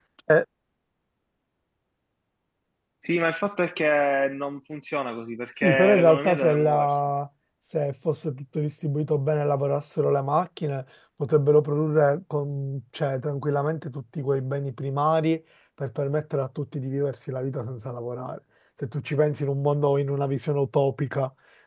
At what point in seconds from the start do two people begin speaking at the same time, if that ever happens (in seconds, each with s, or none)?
5.6 s